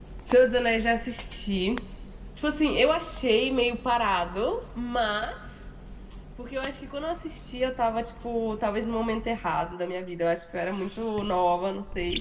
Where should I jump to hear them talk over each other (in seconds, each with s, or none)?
none